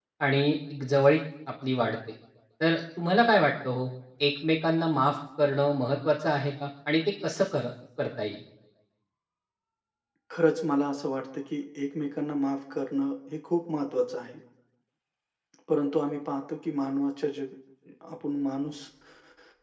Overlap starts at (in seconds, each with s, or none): none